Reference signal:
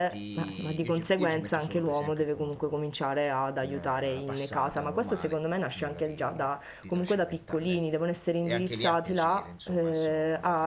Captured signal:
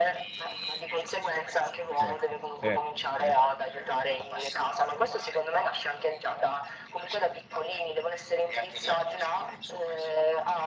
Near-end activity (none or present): present